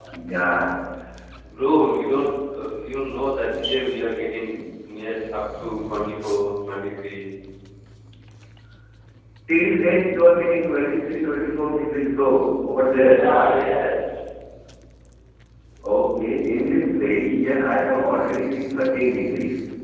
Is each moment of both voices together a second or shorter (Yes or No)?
Yes